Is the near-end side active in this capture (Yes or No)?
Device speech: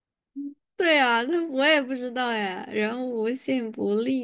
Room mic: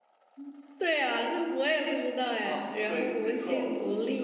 Yes